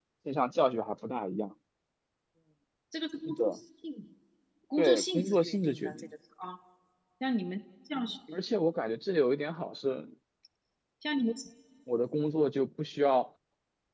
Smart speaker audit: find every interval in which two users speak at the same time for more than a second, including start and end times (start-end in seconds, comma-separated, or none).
4.8-6.1